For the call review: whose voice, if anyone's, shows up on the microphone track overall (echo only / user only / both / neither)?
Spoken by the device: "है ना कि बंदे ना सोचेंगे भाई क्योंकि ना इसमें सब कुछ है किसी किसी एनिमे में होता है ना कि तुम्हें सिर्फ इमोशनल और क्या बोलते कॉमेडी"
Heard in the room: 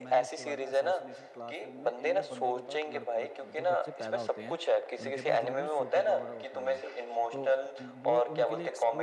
both